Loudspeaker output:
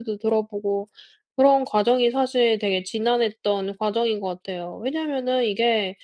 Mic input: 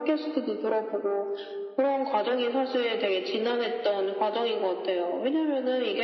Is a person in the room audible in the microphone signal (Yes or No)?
No